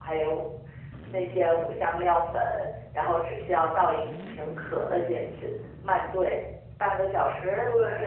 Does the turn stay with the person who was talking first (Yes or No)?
Yes